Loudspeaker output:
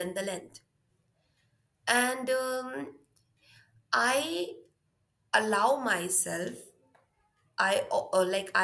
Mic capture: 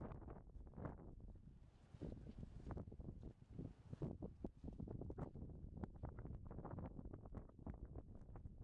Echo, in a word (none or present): none